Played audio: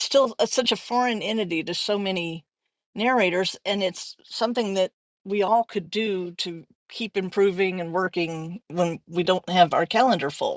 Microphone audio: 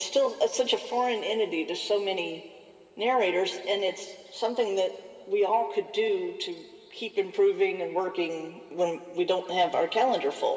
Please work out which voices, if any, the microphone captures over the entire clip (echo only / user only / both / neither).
echo only